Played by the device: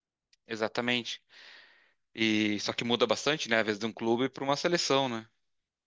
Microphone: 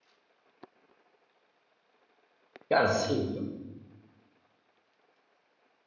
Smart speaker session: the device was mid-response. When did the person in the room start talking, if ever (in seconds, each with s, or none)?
2.7 s